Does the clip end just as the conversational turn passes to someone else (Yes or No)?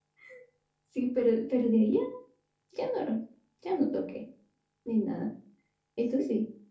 Yes